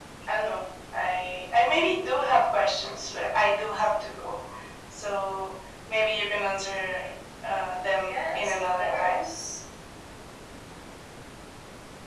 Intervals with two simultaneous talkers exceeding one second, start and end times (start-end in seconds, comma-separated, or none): 8.0-9.2